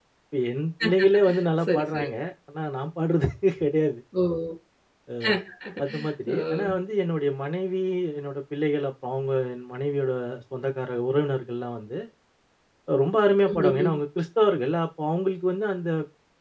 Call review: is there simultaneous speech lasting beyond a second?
No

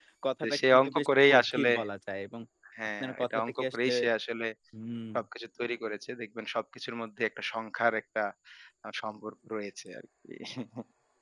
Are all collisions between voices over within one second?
No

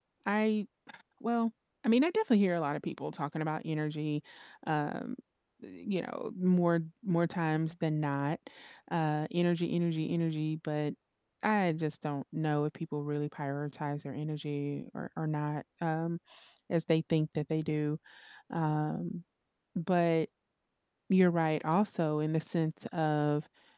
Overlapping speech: No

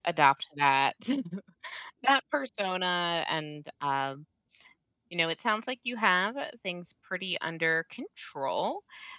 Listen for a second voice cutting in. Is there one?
No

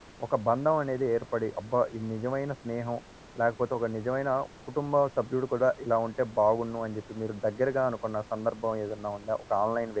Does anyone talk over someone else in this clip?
No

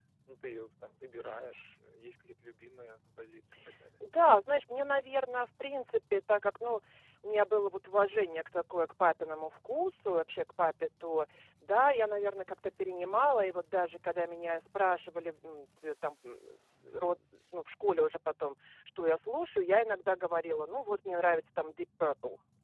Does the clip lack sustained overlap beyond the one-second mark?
Yes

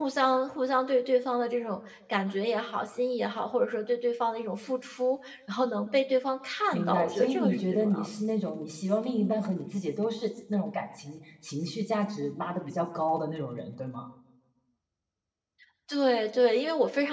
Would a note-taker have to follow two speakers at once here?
Yes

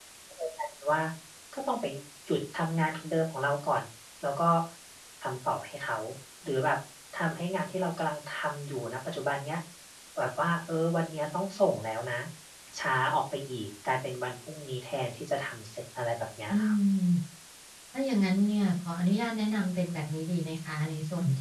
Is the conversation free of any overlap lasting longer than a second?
Yes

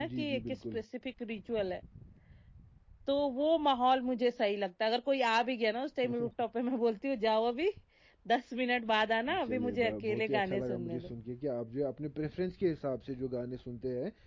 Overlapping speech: Yes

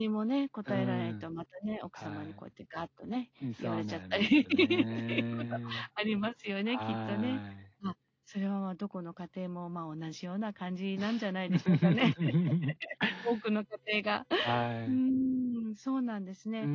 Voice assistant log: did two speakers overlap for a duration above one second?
Yes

